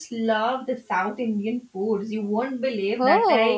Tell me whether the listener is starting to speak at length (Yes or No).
No